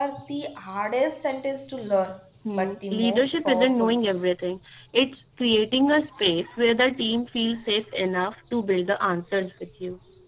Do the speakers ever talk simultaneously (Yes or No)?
Yes